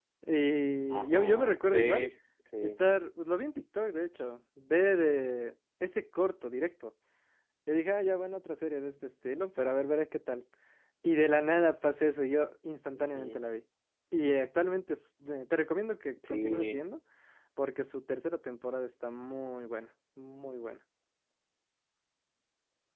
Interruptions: present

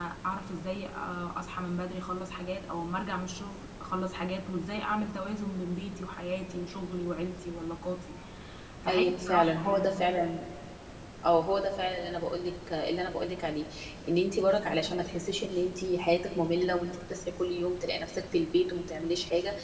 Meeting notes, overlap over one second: present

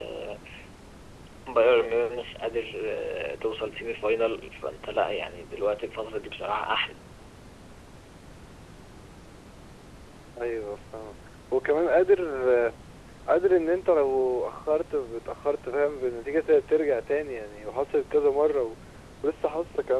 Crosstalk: none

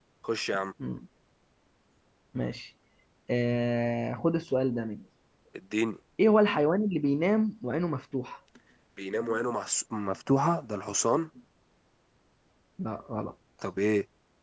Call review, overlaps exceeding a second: none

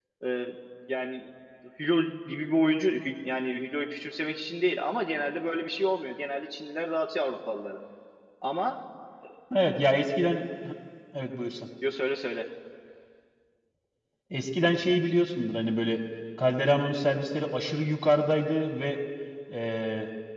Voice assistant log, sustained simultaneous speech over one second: none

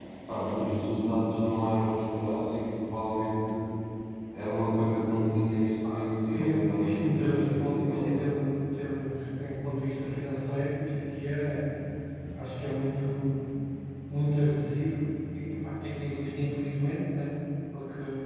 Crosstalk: present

